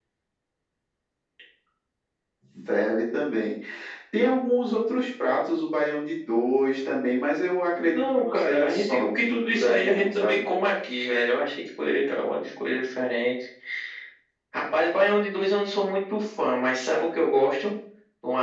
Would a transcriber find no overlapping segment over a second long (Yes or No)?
No